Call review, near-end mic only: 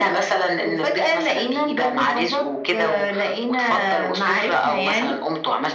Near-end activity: none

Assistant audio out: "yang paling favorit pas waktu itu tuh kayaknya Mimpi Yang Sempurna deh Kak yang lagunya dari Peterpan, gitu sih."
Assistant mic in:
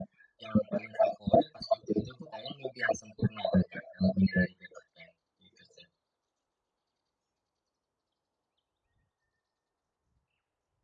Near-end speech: none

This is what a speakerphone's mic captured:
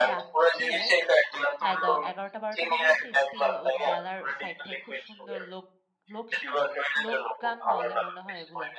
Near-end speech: present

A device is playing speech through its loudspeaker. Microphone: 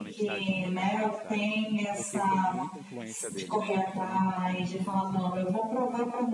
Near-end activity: present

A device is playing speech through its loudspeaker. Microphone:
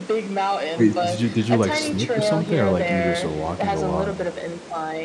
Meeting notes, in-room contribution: present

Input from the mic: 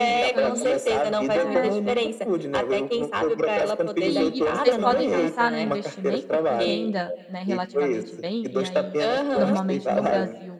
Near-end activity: present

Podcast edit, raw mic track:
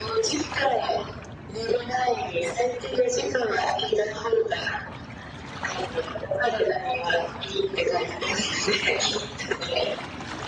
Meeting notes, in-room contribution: none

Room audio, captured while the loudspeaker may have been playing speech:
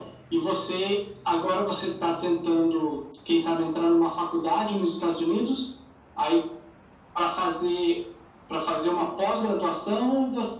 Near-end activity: none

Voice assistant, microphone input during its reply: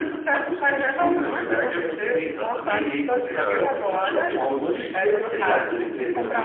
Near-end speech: present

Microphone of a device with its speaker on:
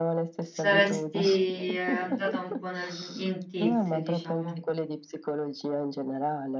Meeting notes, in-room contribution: present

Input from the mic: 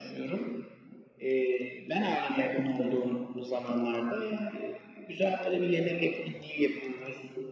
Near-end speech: none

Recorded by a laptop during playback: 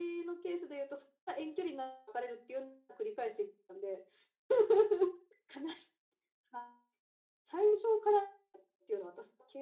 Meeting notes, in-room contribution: none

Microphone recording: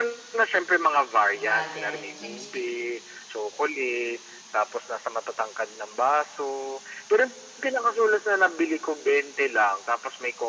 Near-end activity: present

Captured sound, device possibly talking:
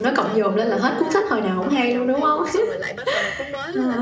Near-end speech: present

